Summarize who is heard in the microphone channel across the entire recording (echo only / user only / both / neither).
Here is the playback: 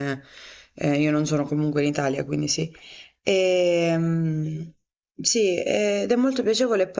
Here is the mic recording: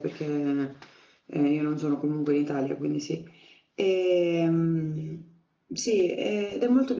echo only